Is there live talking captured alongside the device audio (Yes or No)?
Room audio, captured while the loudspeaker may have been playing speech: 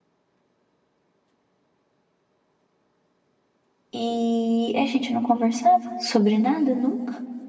Yes